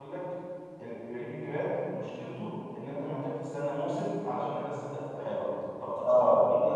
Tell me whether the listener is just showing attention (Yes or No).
Yes